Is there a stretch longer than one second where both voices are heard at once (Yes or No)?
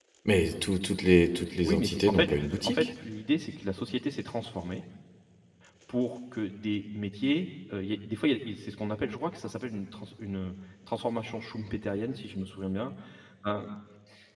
Yes